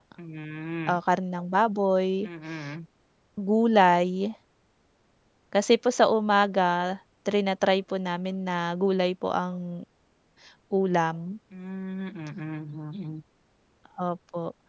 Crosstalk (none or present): none